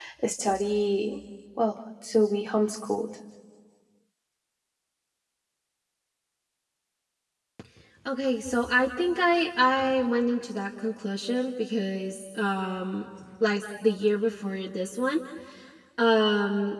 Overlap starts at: none

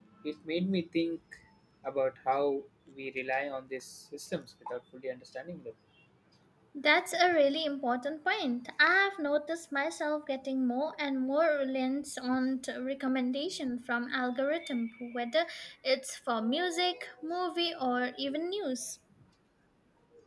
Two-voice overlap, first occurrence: none

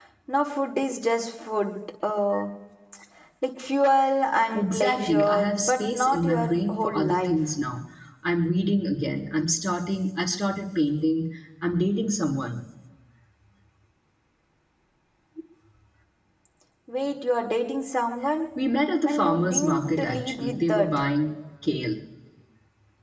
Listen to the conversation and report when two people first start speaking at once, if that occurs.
4.5 s

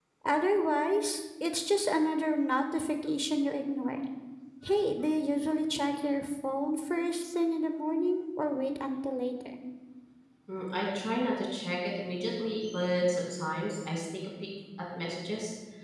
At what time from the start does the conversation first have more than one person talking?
none

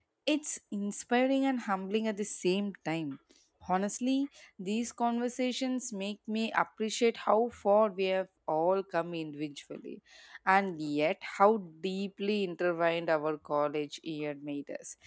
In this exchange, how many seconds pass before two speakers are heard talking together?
none

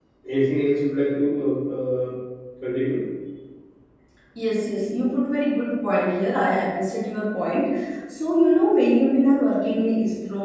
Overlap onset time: none

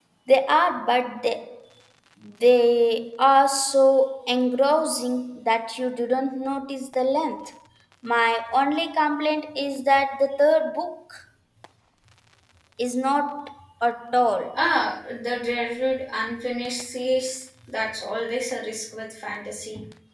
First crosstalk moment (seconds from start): none

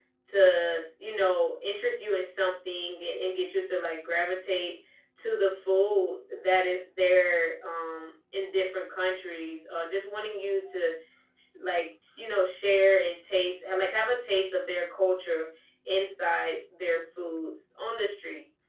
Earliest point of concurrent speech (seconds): none

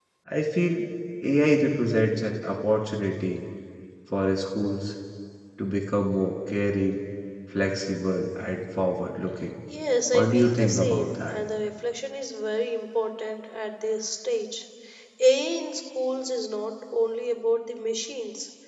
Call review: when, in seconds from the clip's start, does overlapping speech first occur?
10.1 s

